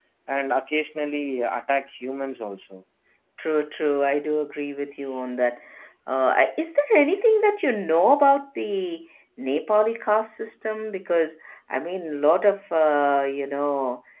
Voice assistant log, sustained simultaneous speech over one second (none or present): none